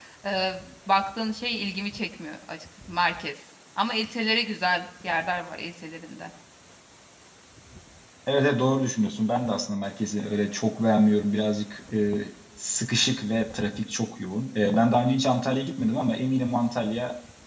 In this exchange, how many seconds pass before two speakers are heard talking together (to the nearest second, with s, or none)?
none